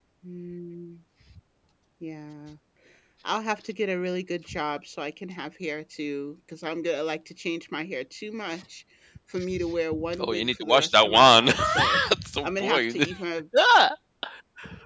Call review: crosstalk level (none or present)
present